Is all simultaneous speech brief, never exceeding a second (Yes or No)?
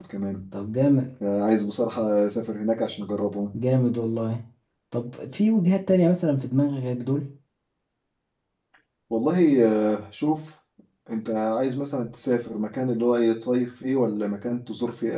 Yes